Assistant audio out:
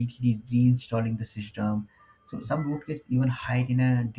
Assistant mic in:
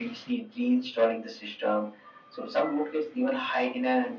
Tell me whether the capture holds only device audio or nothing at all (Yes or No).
Yes